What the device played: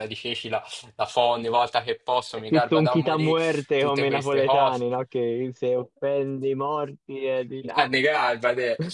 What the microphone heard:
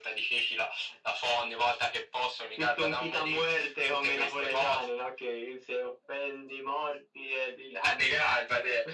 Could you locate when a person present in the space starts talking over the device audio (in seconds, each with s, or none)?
none